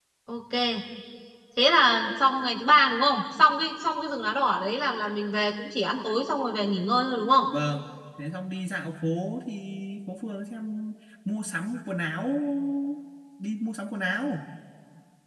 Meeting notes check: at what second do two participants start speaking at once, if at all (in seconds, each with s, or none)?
none